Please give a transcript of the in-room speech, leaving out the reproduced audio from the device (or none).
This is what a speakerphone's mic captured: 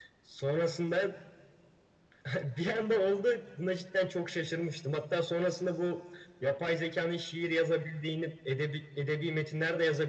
none